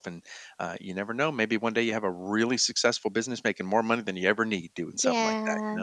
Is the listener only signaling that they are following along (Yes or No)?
No